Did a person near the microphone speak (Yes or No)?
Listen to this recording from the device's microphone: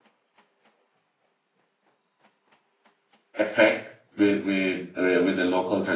Yes